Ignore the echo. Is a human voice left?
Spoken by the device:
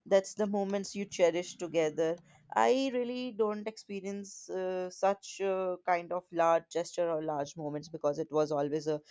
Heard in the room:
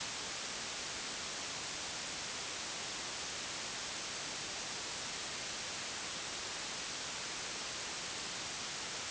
No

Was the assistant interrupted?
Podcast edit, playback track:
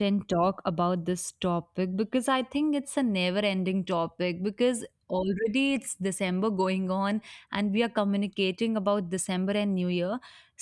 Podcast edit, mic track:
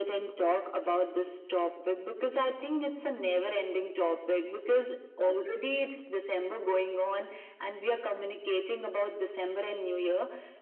No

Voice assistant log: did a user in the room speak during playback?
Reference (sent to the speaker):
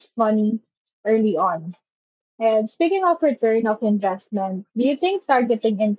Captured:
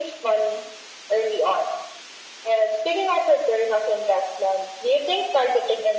No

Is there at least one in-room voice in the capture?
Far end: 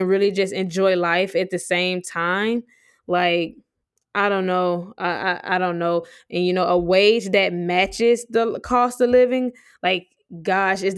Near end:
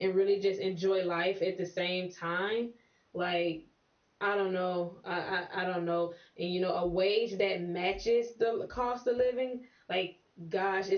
No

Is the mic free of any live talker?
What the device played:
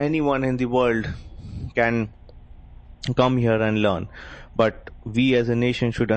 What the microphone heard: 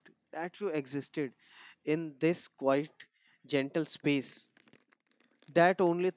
No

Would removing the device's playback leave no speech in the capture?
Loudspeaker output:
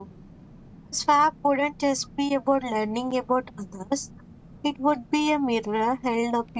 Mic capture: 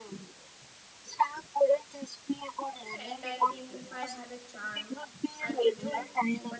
No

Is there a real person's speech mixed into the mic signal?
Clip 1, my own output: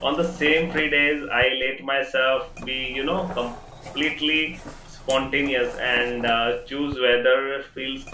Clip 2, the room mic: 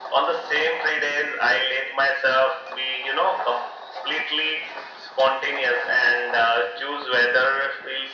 No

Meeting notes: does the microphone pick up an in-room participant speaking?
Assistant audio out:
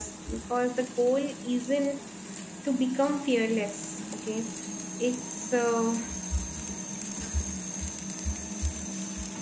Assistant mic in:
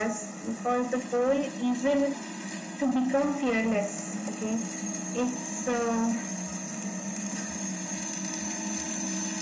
No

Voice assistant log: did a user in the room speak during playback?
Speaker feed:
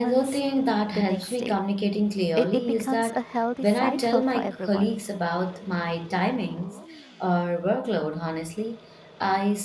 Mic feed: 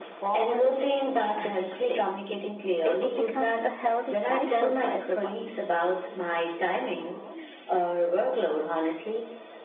No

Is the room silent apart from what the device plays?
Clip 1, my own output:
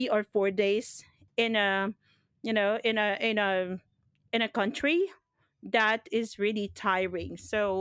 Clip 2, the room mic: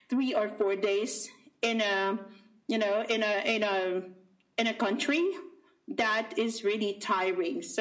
Yes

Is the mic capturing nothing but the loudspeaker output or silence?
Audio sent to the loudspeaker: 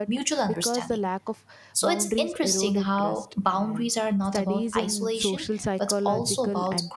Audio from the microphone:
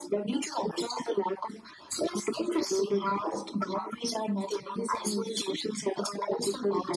Yes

